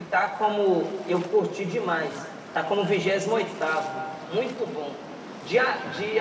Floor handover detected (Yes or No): No